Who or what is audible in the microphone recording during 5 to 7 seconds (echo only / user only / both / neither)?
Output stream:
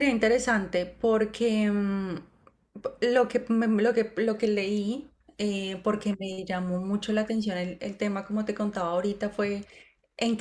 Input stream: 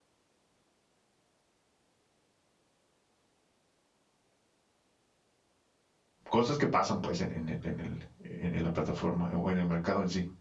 user only